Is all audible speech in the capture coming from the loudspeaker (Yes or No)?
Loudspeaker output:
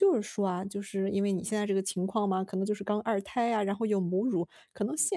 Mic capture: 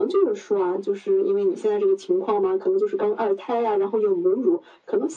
Yes